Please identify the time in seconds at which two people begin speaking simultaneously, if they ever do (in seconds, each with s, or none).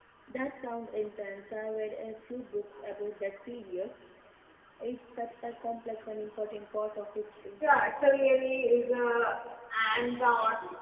none